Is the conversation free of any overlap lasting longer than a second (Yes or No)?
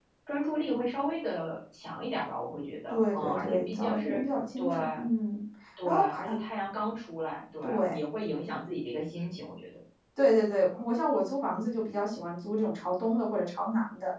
No